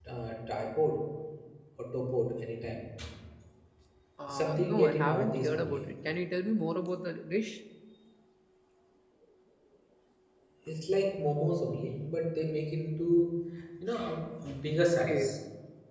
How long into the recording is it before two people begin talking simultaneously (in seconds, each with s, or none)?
4.3 s